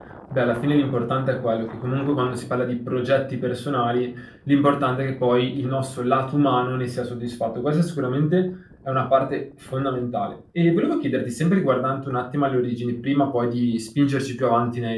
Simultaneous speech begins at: none

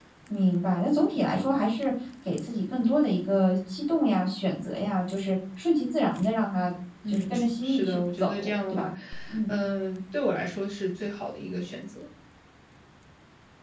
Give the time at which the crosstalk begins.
7 s

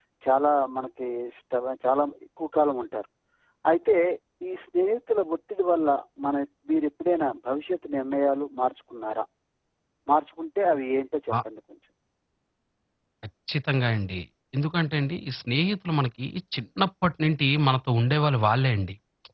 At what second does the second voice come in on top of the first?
none

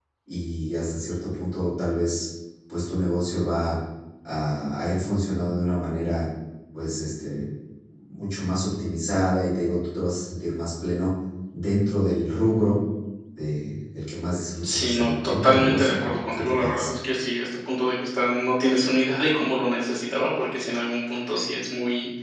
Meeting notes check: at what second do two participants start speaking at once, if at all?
15 s

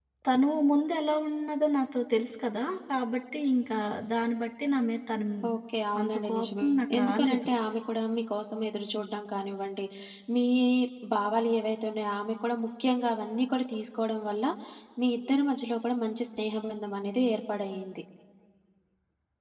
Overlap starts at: 6 s

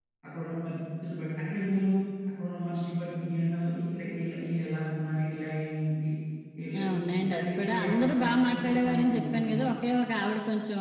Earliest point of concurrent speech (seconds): 7 s

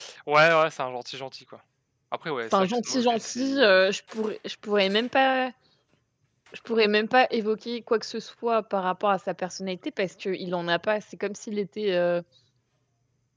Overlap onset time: 3 s

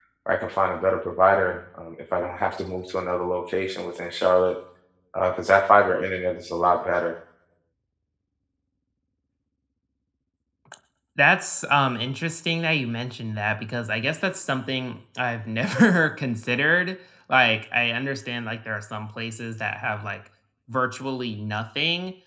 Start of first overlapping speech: none

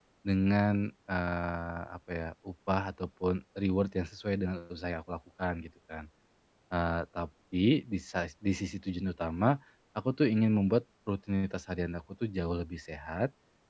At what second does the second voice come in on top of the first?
none

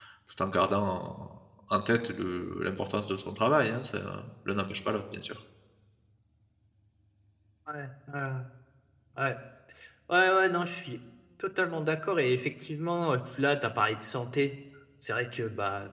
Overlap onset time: none

